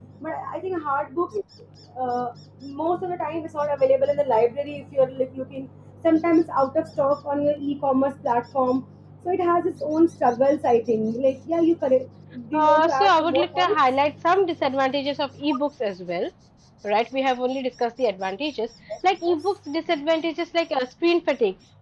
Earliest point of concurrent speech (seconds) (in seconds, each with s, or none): 12.5 s